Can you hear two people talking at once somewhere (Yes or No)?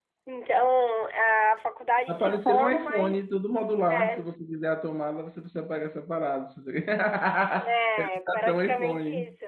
Yes